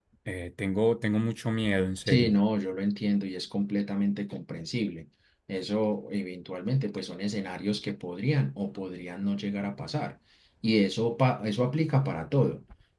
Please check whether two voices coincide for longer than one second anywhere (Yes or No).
No